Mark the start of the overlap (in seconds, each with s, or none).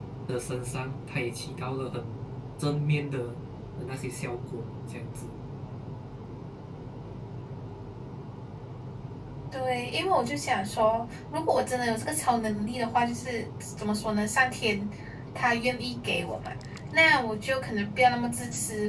none